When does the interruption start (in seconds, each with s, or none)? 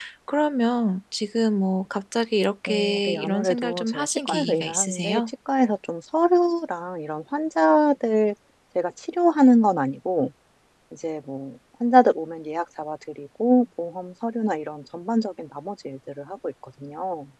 2.7 s